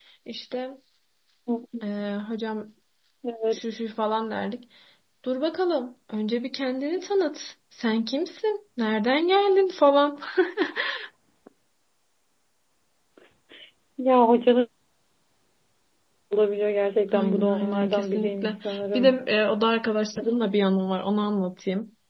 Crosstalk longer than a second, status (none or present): present